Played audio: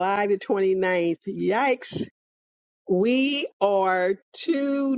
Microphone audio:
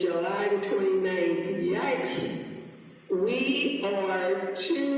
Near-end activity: none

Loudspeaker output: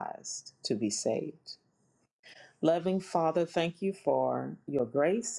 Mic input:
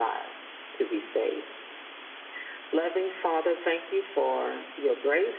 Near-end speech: none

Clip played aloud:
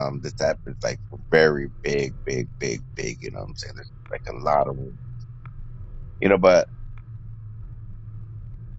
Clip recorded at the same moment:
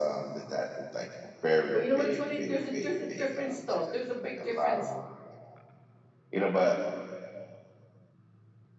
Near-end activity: present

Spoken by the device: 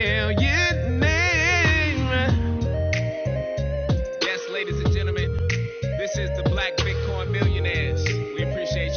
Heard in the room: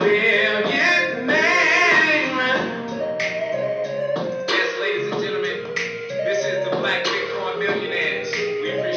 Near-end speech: none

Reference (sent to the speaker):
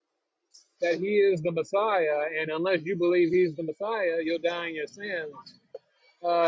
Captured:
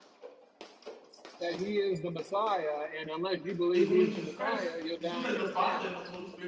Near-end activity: present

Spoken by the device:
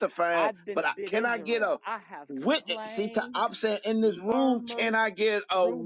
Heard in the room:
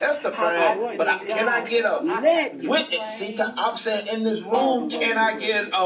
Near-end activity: present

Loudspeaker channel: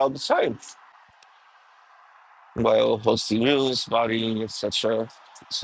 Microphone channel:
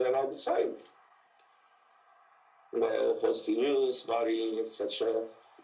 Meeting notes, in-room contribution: none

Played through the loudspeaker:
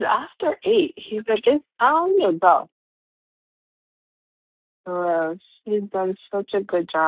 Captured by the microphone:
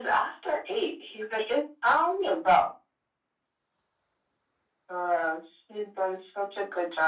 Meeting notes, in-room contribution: none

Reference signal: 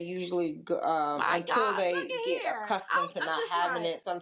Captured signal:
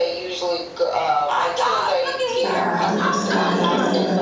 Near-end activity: present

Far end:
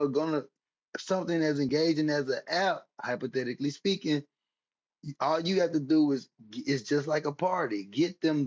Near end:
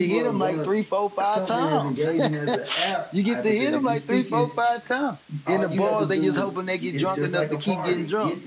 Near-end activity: present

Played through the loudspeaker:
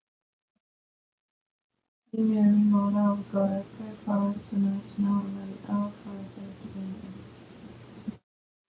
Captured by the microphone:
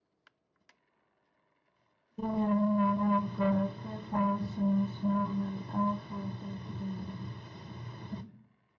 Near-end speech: none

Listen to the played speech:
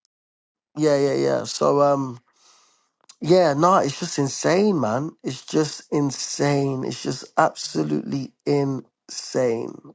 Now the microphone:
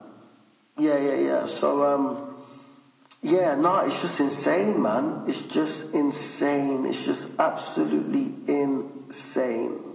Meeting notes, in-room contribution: none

